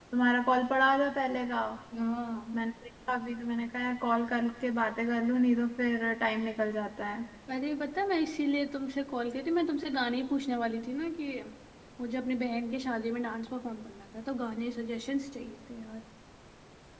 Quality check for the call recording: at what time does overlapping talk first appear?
none

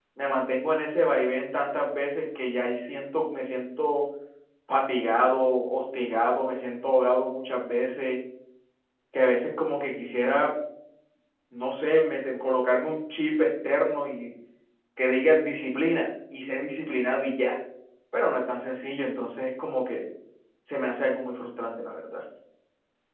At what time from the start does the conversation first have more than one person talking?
none

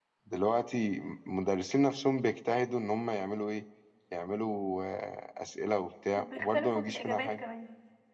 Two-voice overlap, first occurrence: 6.2 s

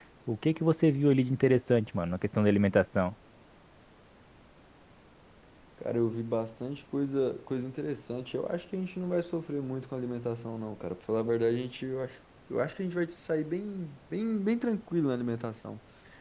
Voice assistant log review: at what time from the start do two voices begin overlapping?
none

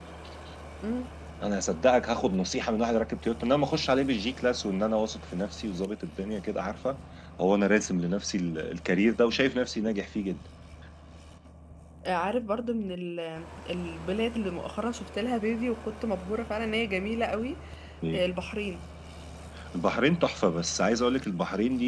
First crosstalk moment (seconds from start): none

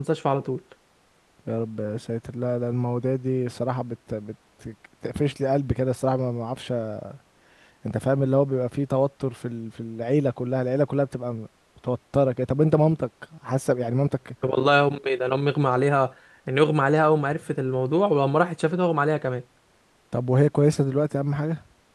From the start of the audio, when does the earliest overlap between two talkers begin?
none

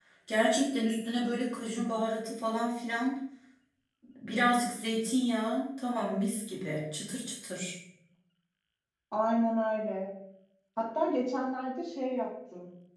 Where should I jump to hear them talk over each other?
none

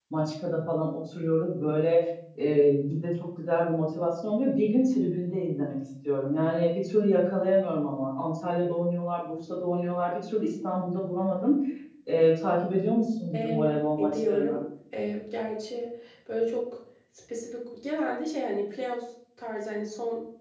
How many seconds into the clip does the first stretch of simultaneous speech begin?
13.3 s

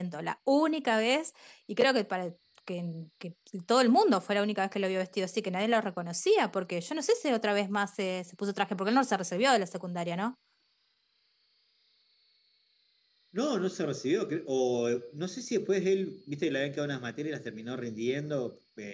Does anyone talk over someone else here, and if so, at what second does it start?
none

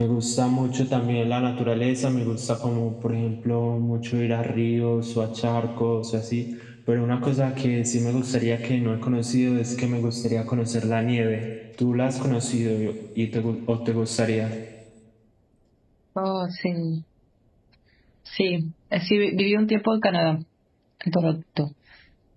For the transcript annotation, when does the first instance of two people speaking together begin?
none

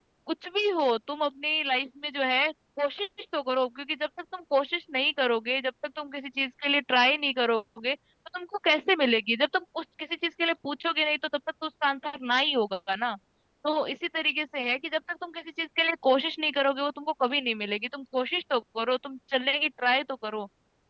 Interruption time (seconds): none

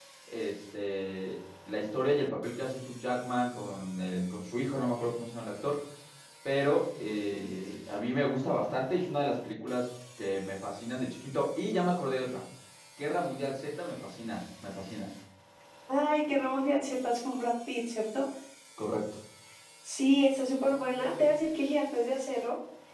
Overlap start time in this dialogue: none

